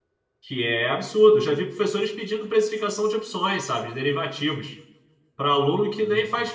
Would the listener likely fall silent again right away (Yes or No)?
Yes